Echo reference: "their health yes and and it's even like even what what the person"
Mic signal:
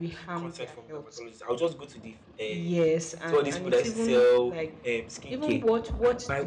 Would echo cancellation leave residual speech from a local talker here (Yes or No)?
Yes